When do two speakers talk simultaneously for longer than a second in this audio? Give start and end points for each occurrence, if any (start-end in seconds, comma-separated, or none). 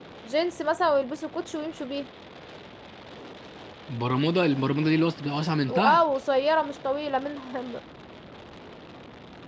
none